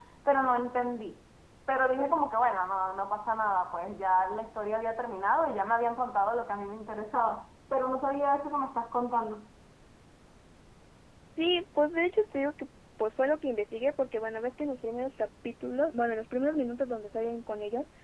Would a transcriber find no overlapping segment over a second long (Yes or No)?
Yes